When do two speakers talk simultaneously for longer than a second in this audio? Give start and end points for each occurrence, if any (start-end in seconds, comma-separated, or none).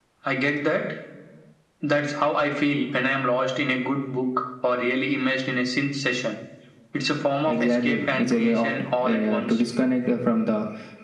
7.5-9.6